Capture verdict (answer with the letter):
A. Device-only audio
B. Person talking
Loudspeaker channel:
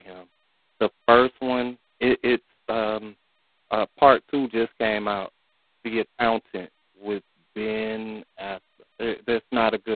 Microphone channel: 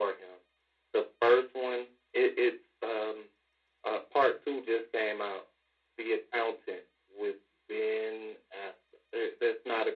A